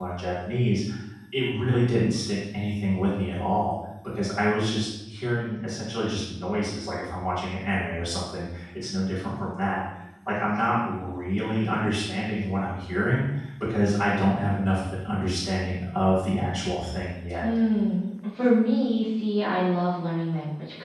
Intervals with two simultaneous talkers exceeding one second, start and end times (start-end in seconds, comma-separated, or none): none